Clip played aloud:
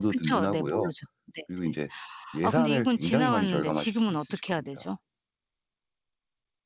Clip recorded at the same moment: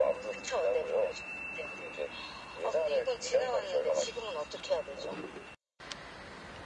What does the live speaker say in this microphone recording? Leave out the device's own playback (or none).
none